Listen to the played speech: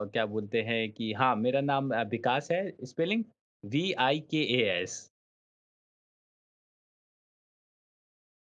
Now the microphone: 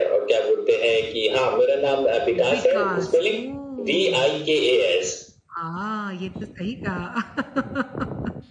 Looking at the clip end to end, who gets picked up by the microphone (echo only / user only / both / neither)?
both